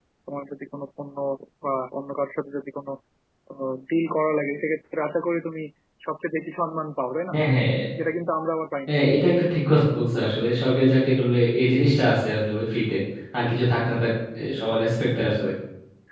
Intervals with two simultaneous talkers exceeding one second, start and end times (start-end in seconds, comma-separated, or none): none